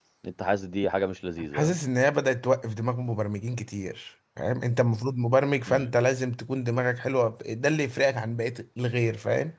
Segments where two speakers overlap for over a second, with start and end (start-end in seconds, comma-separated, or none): none